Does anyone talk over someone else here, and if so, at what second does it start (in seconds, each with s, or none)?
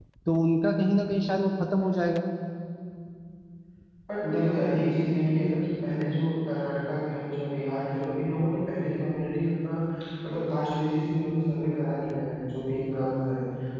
none